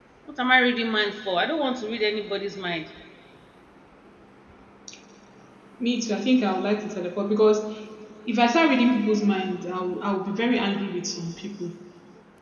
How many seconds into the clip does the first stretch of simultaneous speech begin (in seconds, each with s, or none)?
none